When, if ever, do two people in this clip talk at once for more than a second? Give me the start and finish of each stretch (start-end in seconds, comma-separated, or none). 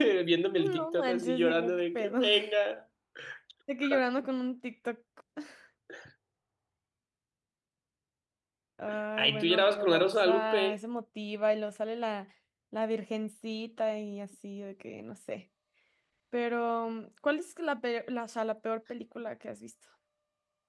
0.6-2.2, 9.2-10.8